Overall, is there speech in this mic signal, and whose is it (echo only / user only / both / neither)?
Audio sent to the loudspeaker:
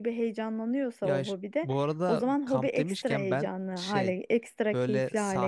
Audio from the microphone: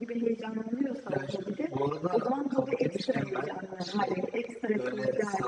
echo only